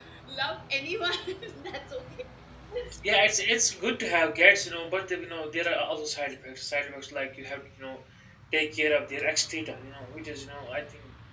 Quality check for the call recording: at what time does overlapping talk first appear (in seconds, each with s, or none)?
none